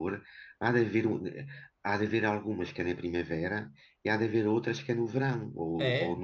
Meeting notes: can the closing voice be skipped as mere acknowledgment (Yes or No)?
No